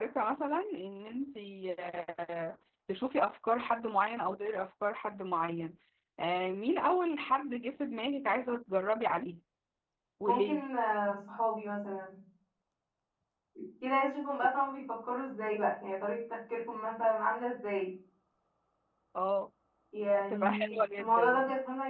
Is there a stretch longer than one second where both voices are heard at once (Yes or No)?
Yes